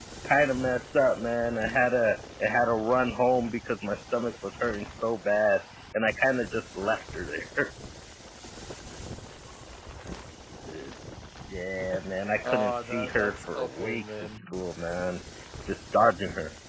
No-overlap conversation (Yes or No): No